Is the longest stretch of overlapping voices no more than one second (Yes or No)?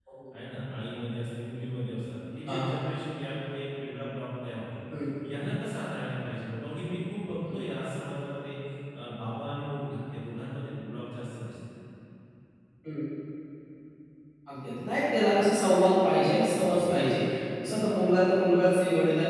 Yes